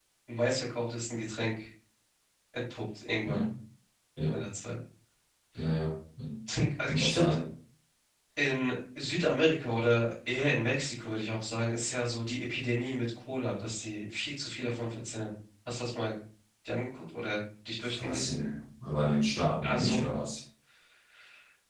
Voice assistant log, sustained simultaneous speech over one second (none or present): none